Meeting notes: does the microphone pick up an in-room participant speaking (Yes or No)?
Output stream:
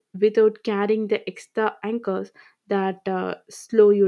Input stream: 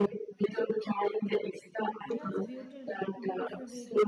Yes